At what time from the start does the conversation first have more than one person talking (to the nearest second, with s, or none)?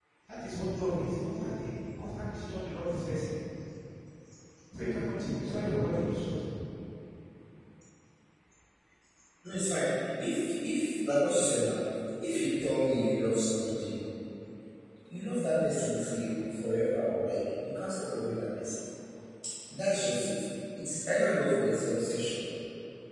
none